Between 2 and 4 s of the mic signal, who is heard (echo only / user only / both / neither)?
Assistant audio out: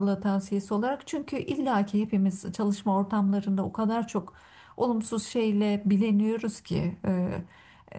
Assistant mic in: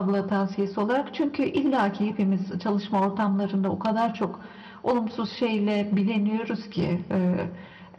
echo only